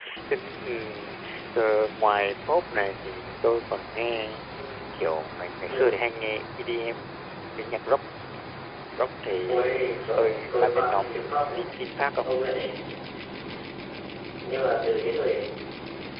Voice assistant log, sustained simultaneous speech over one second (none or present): present